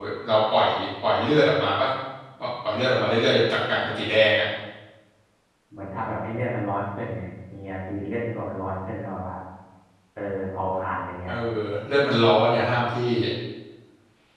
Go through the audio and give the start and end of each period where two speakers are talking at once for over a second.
none

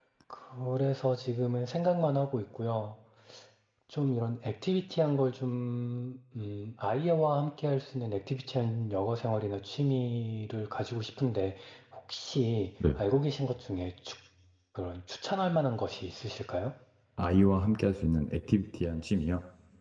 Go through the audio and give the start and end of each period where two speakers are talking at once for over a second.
none

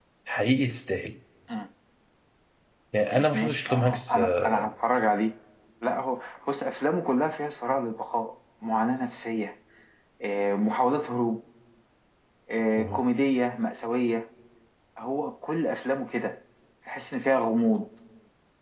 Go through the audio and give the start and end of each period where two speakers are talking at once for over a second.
3.1-4.5

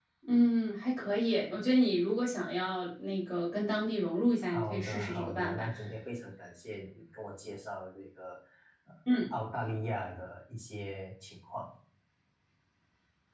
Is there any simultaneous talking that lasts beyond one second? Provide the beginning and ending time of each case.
4.5-5.7

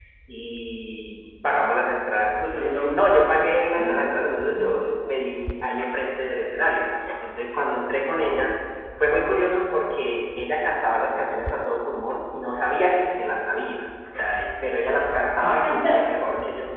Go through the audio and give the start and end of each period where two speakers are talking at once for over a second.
none

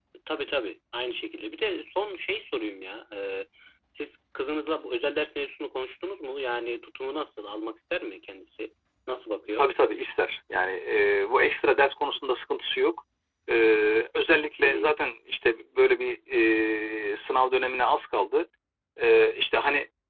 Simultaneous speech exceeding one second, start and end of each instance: none

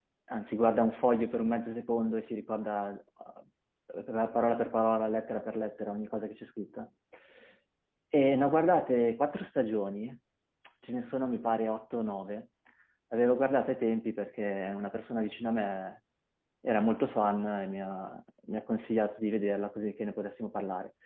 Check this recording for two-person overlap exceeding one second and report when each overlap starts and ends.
none

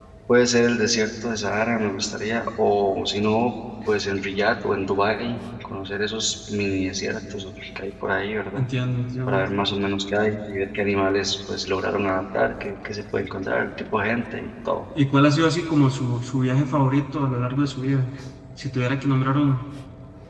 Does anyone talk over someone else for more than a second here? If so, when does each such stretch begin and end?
none

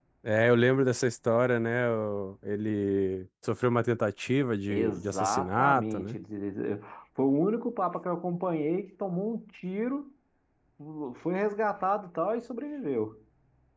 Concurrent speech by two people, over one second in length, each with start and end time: 4.7-6.2

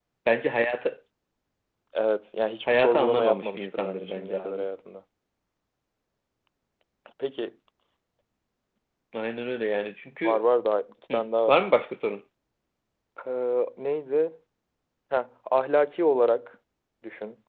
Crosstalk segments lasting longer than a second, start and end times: 2.7-4.6

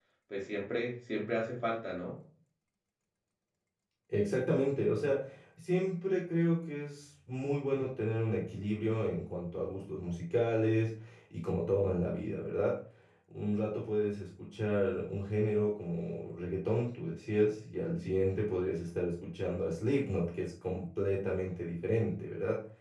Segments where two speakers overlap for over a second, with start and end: none

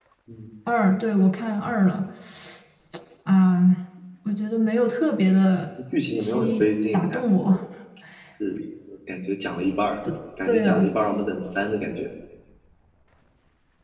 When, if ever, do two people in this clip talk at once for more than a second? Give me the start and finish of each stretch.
6.2-7.5

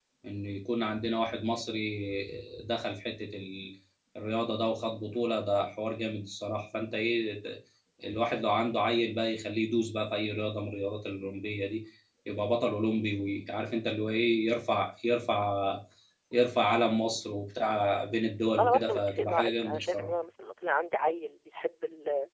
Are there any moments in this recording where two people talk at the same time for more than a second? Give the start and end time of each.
18.6-20.1

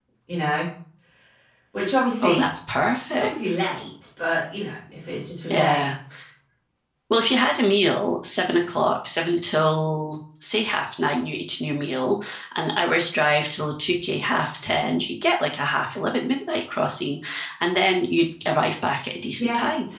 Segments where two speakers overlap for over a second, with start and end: none

